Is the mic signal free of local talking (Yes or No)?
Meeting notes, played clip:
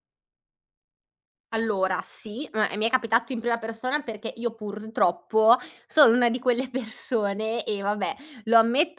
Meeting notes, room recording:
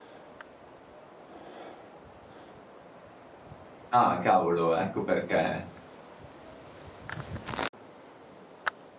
No